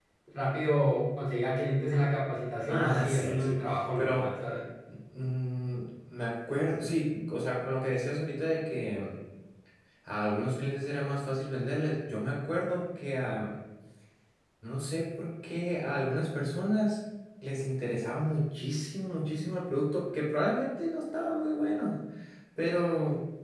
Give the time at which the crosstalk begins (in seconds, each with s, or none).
2.7 s